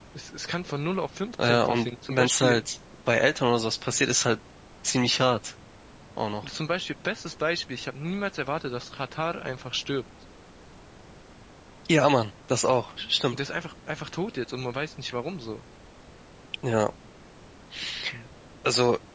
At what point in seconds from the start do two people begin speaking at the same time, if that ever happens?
1 s

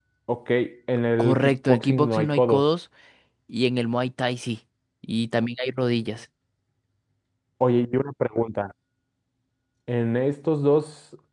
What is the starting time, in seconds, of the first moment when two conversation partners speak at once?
1 s

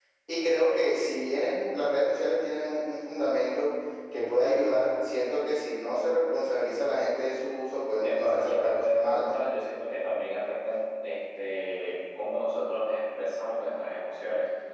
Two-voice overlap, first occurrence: 8 s

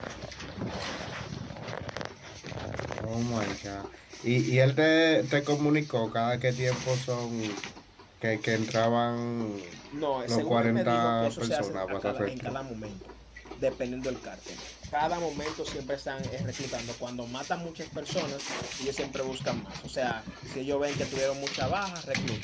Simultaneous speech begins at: 10 s

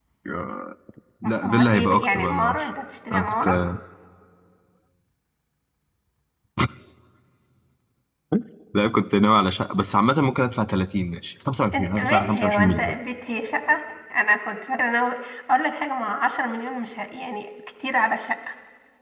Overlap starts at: 1 s

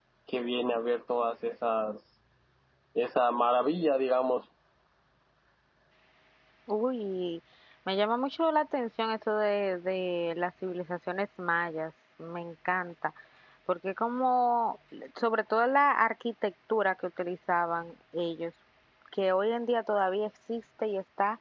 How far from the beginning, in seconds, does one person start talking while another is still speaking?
none

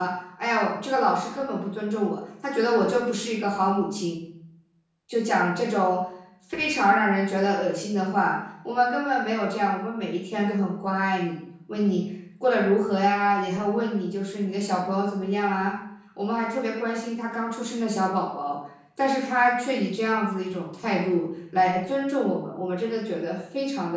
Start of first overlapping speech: none

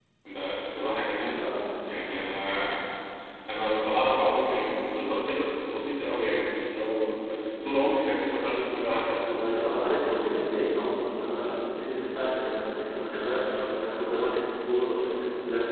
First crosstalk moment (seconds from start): none

